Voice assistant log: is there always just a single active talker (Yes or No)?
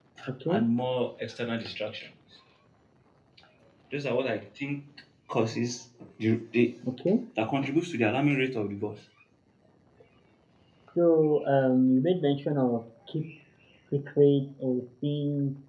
Yes